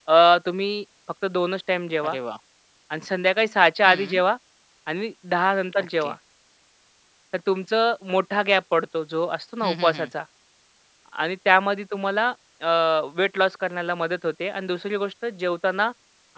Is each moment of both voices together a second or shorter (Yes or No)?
Yes